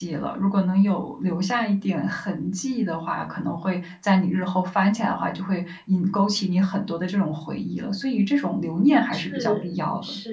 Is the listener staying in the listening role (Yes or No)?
No